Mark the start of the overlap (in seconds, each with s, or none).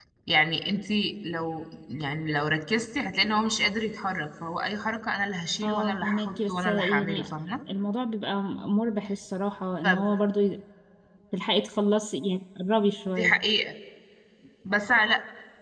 5.6 s